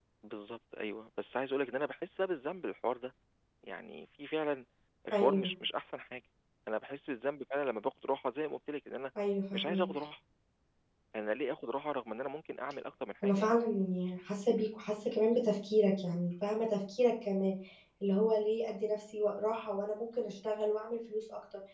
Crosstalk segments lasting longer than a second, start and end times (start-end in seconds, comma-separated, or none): none